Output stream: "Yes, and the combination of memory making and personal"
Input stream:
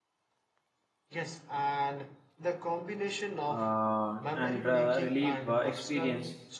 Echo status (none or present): present